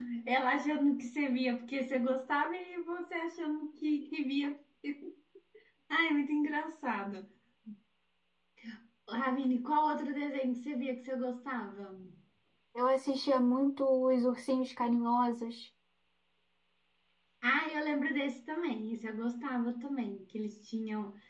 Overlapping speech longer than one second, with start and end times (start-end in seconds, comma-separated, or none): none